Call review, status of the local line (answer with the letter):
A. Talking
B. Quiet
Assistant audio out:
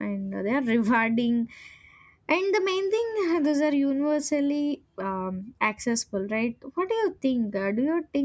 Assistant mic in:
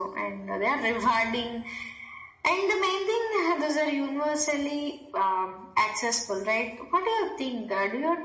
B